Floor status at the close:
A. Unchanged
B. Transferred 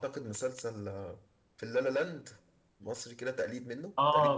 B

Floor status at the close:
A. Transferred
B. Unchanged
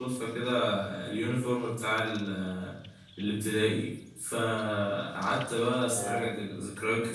B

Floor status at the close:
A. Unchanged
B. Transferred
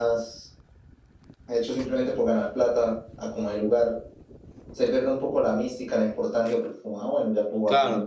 B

